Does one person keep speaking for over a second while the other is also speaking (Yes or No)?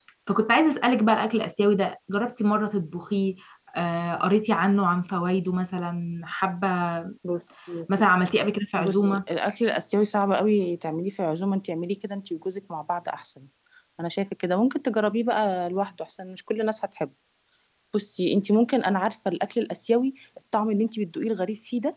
No